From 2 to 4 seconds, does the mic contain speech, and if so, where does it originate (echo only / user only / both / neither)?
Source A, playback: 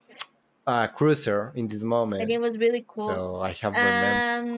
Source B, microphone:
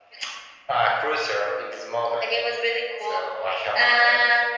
echo only